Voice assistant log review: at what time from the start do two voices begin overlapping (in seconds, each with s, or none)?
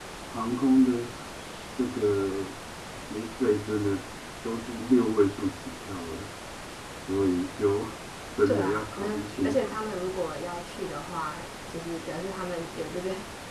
8.4 s